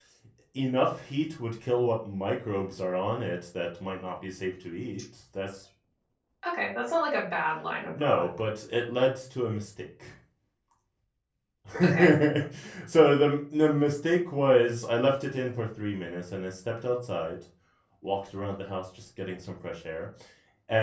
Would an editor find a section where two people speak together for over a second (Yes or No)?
No